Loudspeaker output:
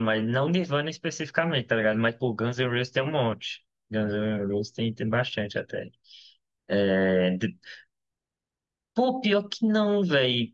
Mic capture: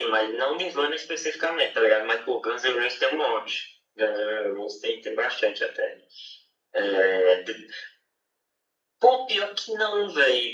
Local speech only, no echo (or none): none